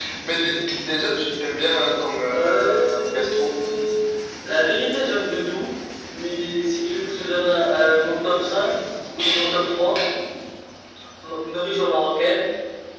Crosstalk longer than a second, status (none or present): present